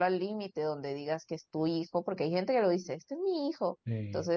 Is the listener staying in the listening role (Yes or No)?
Yes